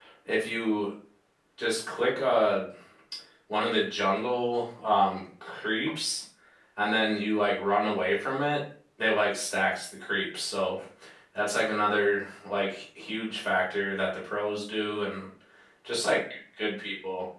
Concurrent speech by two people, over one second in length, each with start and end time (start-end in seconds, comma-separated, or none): none